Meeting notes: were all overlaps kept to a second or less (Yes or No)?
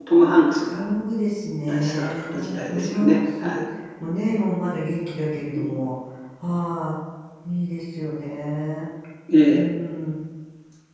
No